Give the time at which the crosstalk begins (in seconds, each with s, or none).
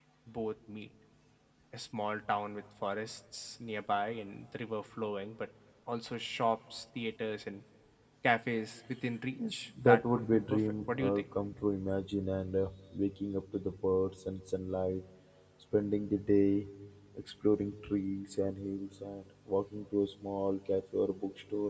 9.4 s